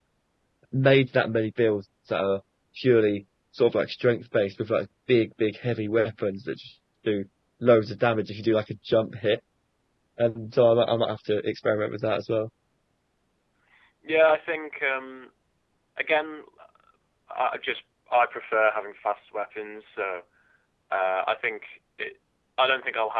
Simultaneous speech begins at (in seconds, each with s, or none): none